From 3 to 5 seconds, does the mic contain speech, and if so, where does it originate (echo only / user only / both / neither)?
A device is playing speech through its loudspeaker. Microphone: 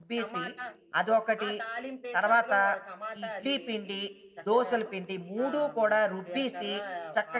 both